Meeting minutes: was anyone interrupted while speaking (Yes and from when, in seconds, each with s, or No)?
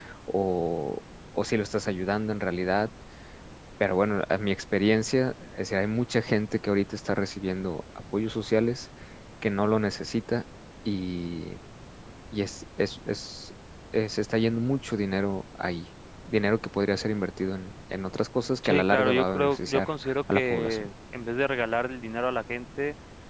Yes, from 18.6 s